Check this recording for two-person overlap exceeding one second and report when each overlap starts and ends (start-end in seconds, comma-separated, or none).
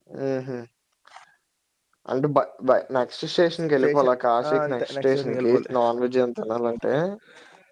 4.5-5.7